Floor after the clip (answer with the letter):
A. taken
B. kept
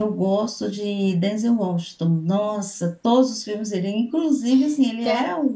B